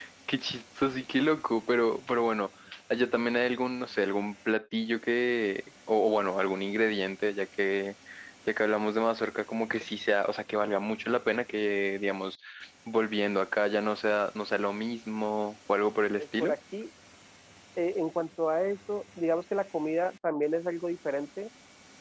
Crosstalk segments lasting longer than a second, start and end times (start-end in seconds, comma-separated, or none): none